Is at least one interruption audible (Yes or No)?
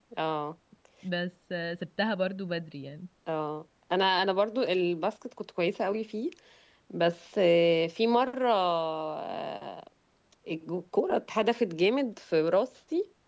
No